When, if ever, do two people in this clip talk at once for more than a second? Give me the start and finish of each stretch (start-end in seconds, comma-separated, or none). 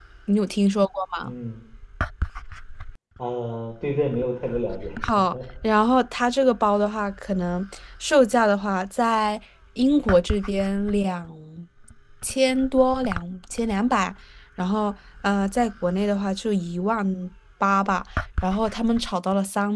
none